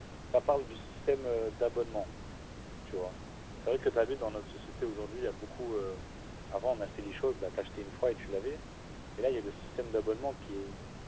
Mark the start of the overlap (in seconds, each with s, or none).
none